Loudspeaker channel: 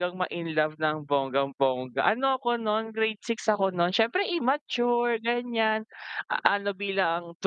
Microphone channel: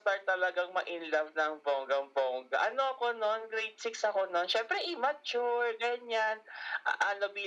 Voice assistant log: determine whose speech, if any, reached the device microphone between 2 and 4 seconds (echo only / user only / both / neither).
echo only